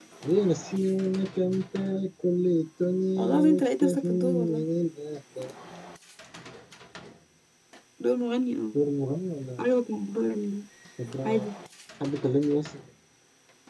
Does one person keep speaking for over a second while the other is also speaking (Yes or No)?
Yes